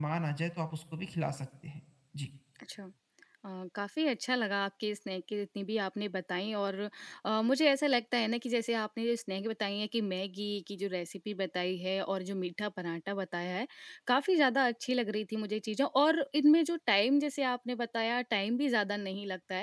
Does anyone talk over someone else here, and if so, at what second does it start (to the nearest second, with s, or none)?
none